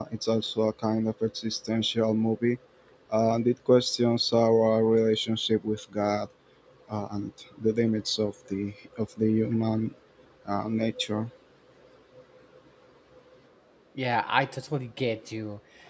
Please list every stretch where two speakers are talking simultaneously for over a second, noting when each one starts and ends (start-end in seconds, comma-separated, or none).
none